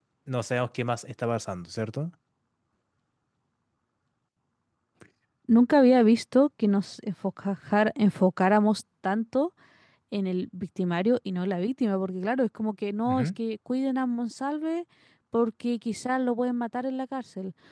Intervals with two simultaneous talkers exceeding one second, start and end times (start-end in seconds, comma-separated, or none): none